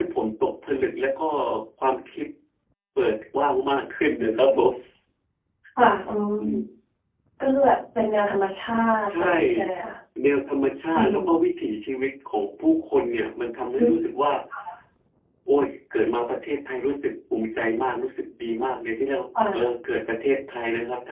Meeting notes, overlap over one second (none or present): none